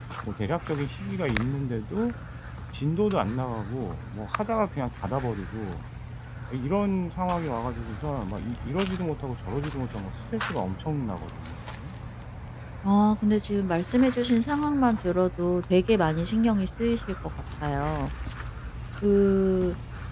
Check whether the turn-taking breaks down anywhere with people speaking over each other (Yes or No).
No